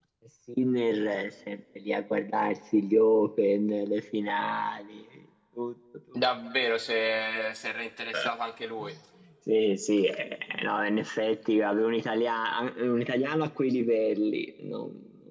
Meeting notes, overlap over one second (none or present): none